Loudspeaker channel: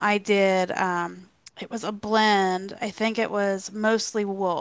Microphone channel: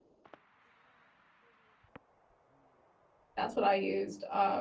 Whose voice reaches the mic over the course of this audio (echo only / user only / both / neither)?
user only